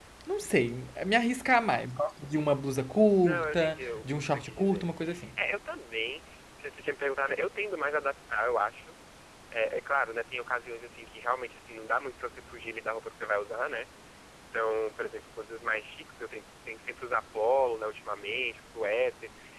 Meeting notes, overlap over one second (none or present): present